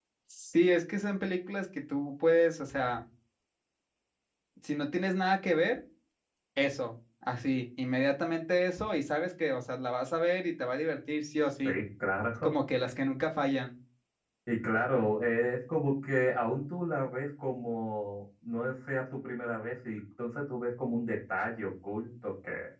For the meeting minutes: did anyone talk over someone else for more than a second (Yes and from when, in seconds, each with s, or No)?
No